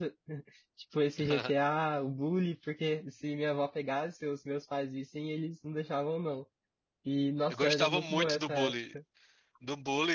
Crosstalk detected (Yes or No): Yes